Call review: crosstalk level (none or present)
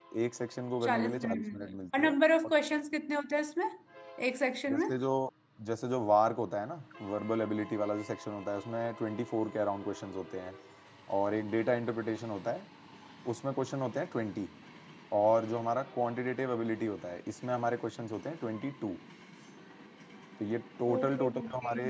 present